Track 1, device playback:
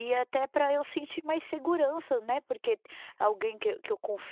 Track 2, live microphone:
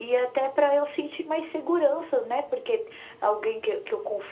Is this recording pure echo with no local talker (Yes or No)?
Yes